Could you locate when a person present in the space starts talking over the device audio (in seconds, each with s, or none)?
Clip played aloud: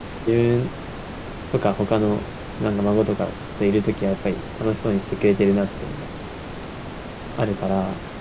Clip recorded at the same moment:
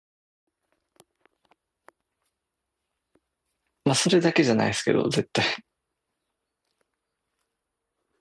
3.9 s